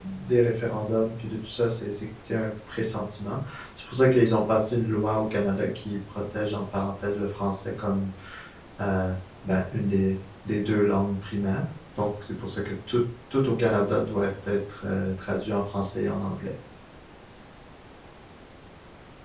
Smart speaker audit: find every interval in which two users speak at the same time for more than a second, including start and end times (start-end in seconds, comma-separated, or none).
none